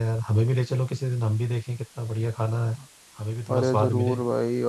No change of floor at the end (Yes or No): No